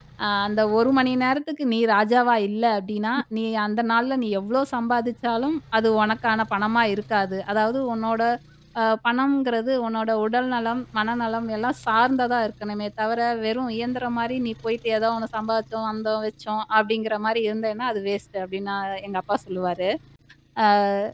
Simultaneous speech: No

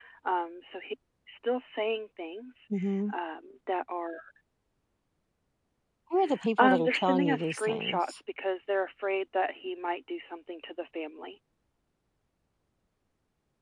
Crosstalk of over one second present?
Yes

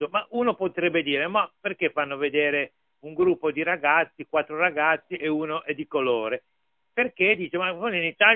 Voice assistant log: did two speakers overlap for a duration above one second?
No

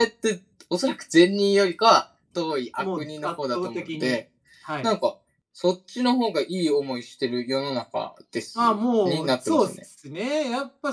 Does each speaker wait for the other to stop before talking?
No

